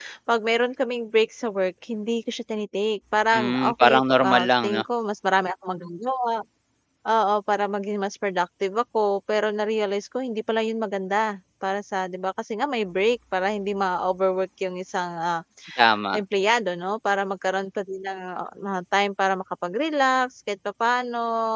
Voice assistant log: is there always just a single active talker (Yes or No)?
No